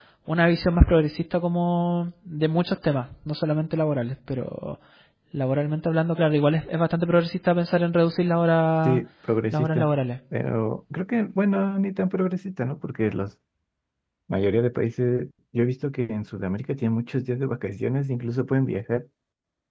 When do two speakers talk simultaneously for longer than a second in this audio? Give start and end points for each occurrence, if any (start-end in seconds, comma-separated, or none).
none